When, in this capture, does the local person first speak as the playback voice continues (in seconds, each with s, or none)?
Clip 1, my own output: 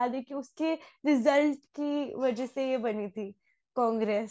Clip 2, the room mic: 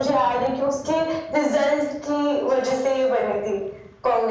none